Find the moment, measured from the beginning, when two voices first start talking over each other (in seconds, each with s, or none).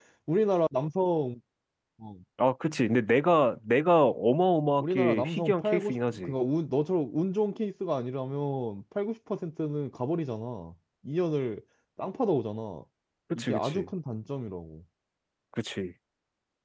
4.8 s